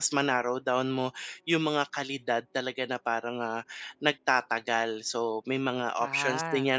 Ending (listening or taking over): listening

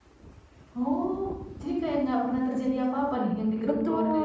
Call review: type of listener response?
taking over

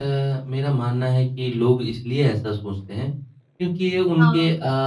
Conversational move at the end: listening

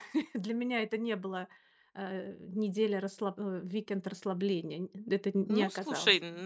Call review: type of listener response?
taking over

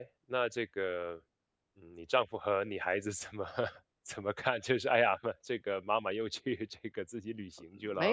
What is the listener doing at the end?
taking over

